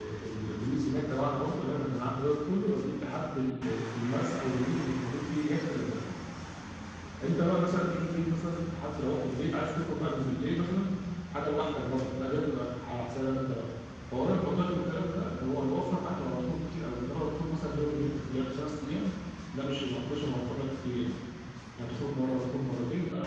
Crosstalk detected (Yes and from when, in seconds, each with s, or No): No